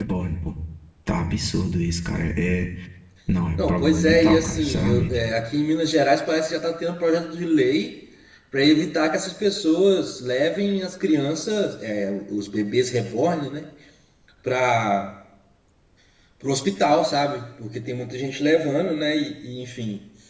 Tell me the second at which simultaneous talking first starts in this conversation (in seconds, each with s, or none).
3.6 s